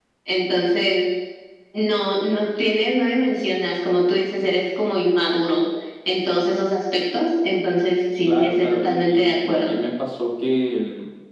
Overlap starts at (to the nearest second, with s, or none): 8 s